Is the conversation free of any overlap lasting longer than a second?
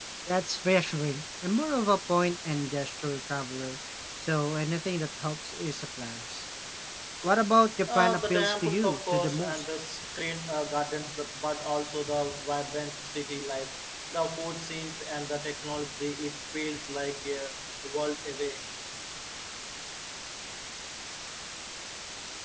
No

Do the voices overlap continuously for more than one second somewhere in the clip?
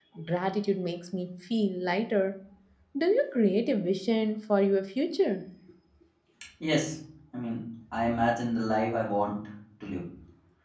No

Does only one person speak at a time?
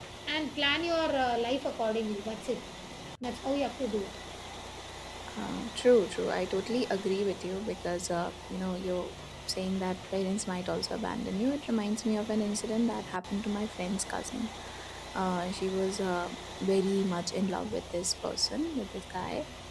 Yes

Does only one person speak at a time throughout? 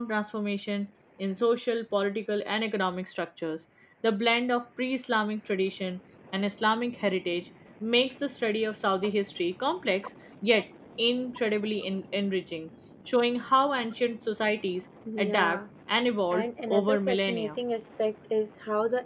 No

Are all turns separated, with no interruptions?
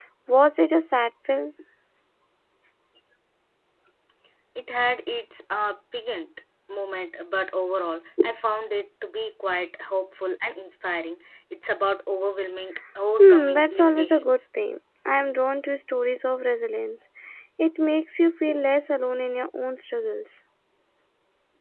No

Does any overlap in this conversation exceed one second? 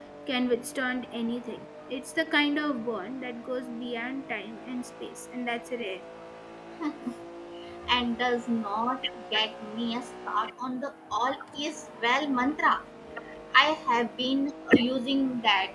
No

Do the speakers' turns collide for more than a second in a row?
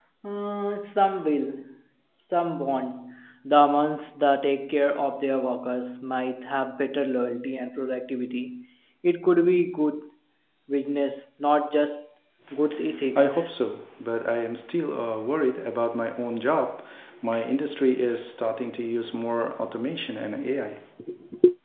No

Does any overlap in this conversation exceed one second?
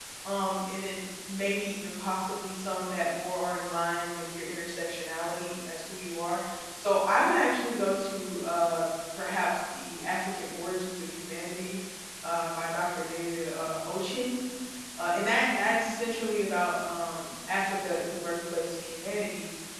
No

